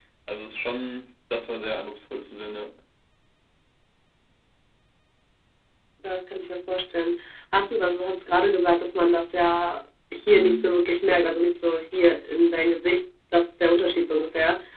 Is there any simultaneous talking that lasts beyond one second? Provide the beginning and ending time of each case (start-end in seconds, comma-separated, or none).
none